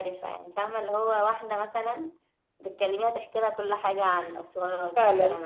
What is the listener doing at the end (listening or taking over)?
taking over